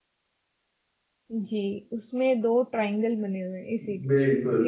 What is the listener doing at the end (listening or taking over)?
taking over